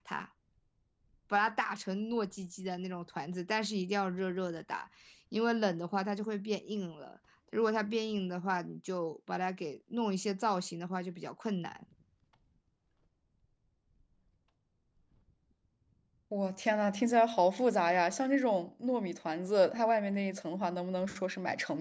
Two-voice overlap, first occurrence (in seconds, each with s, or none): none